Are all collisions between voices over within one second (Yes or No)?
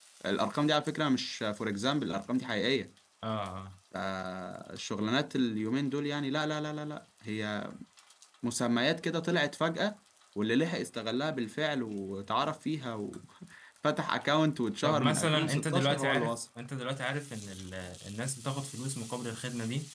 No